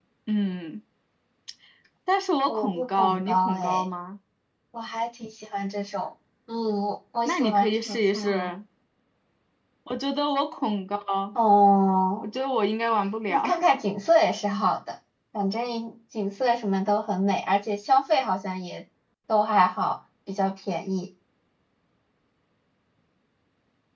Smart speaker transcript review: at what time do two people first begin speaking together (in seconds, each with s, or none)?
2.5 s